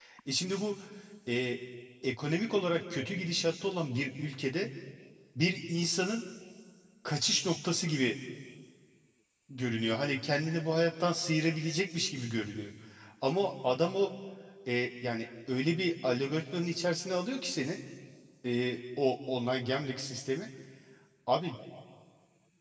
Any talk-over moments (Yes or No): No